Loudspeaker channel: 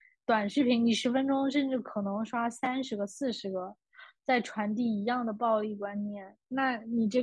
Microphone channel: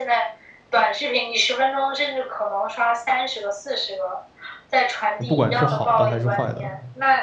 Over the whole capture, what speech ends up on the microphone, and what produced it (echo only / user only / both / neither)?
both